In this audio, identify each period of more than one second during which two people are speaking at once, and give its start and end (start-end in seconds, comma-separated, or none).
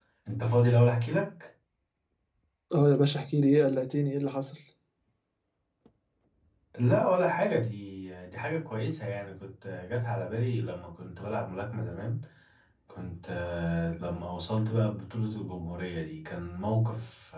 none